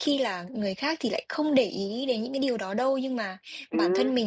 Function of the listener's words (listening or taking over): listening